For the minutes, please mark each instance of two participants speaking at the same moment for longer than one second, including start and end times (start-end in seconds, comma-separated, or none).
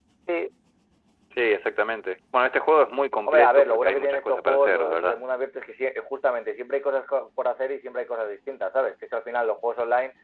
3.3-5.2